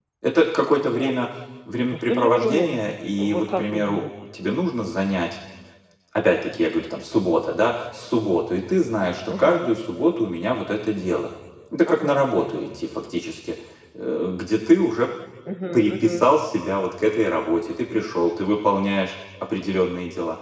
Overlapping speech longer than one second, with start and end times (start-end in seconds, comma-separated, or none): 1.9-4.0